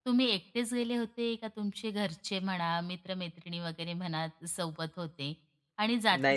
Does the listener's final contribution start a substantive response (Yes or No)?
No